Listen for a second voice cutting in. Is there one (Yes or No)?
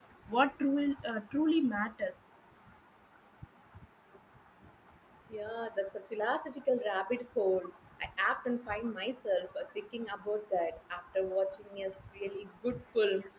No